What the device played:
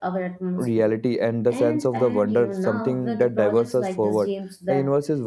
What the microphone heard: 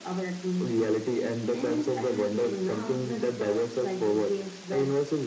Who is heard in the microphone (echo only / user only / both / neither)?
echo only